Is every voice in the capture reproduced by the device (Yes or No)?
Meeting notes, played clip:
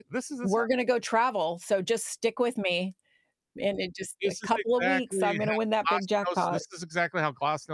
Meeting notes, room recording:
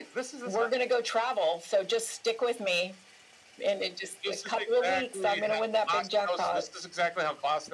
Yes